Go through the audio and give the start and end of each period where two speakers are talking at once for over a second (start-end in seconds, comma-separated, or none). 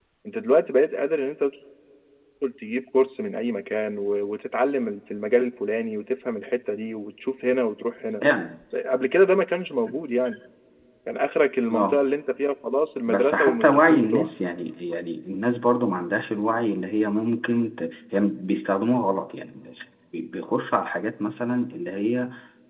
13.1-14.3